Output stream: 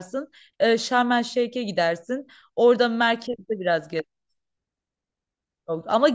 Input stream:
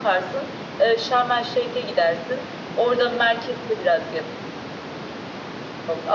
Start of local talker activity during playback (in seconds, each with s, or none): none